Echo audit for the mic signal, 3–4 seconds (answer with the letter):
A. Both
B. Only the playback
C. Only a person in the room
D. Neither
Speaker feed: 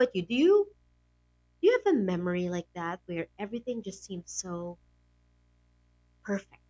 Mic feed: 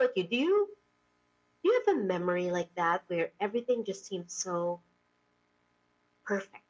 B